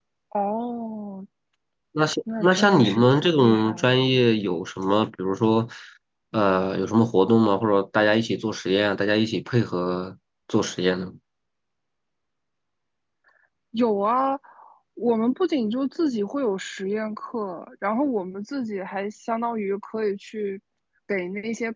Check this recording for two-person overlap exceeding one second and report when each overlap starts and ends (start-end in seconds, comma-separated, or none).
2.4-4.0